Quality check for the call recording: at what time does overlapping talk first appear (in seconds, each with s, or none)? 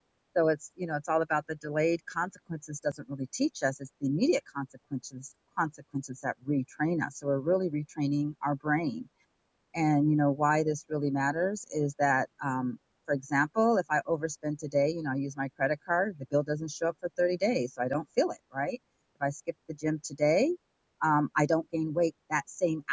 none